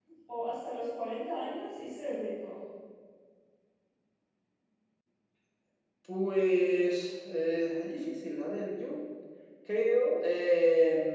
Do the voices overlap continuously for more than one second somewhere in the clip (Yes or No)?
No